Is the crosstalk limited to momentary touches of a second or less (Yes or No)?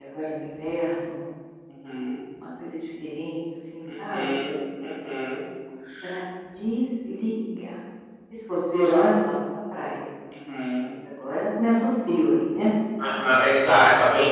Yes